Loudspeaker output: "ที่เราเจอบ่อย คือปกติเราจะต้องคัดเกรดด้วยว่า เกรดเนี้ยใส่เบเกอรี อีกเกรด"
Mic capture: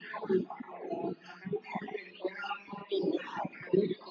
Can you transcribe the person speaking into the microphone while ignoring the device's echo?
none

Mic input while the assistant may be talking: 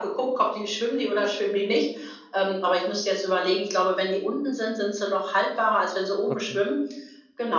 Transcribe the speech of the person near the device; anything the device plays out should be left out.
Okay.

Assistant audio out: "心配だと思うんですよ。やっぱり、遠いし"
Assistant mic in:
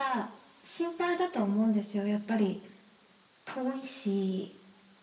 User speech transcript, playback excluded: none

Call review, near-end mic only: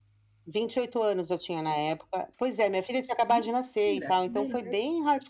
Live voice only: Mentira! Que beleza.

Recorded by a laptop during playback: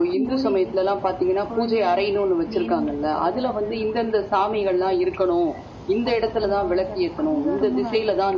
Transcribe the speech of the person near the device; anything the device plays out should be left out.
none

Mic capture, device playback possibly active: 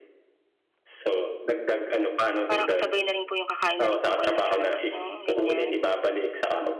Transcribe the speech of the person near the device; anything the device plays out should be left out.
Parang kasabay na rin po yung kakain na rin po kayo nyan sa labas, no, ganyan.

